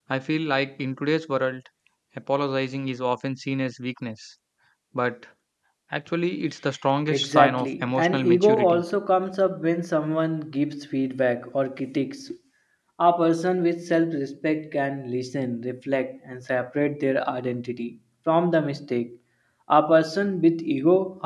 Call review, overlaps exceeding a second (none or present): present